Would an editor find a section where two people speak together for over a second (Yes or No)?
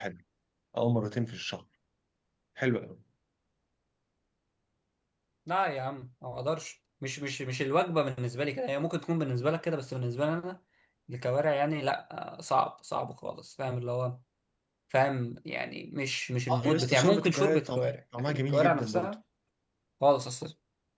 Yes